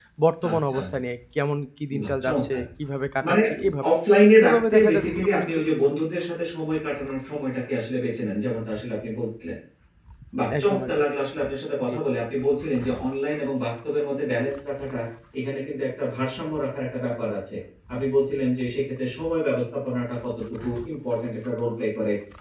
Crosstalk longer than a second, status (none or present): present